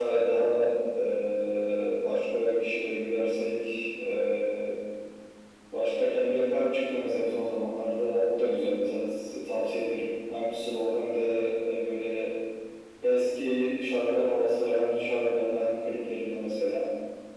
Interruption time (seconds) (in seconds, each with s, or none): none